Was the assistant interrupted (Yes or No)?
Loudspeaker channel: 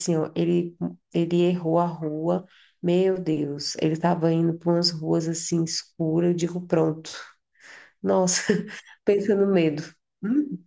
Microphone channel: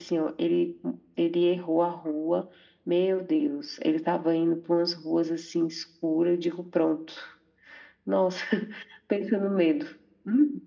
No